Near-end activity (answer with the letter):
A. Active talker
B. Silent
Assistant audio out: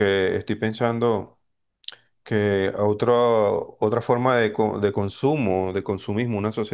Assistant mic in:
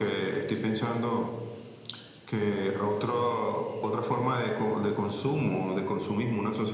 B